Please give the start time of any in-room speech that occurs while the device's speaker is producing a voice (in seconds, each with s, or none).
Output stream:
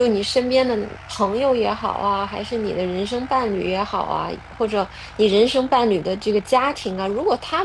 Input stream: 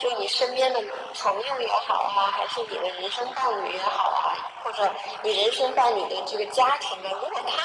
none